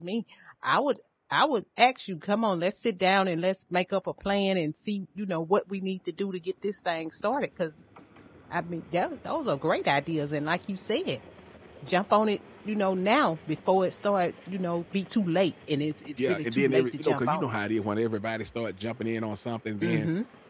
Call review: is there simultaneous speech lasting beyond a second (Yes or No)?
Yes